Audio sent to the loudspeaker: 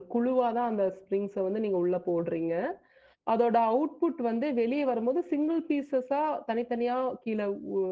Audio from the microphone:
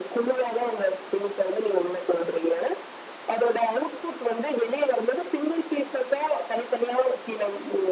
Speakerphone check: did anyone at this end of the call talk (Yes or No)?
No